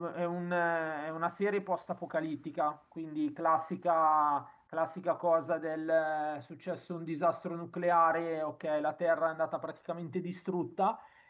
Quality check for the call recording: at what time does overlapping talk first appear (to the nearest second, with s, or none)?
none